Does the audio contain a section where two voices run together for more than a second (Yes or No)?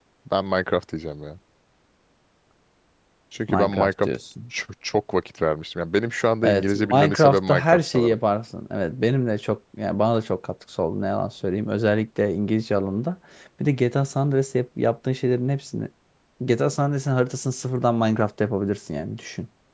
Yes